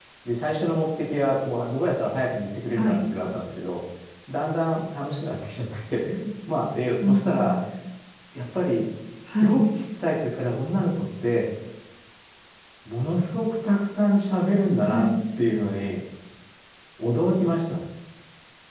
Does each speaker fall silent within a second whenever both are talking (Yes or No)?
Yes